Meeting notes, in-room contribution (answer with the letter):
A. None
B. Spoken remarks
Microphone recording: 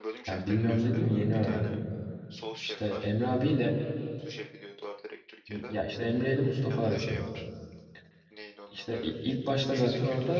B